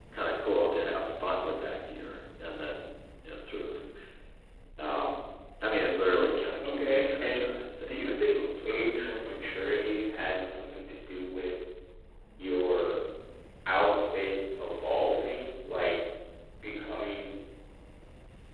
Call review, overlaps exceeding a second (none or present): present